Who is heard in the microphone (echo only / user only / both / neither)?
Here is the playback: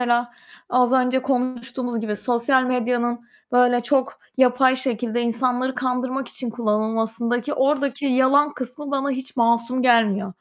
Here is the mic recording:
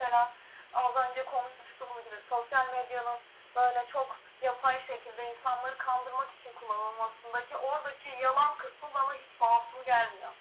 echo only